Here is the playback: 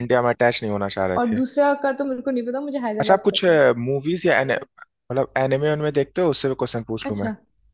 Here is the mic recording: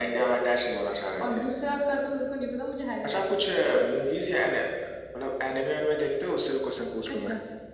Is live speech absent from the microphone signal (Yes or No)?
Yes